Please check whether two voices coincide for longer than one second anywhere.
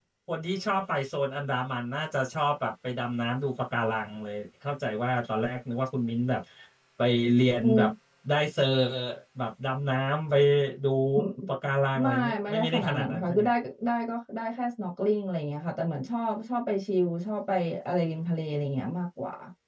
Yes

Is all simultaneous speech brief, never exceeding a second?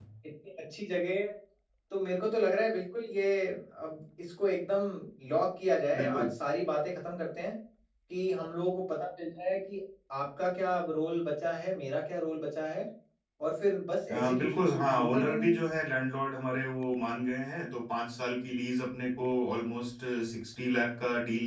No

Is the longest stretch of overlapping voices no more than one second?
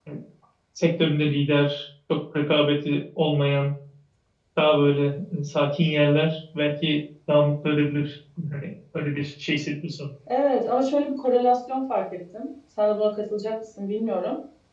Yes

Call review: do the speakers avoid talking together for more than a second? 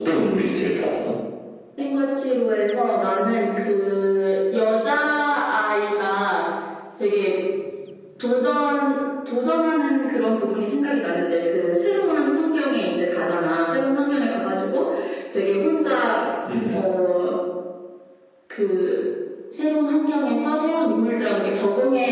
Yes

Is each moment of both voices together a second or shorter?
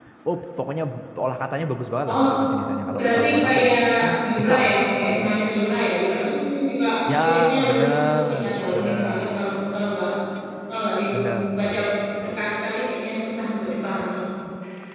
No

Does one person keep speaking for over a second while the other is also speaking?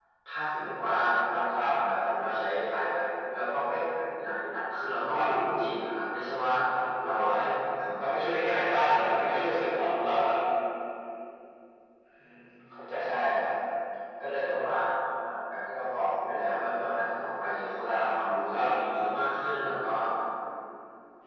Yes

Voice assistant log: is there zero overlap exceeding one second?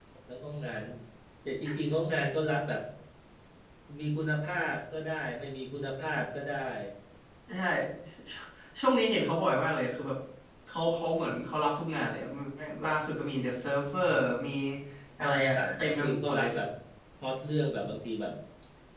No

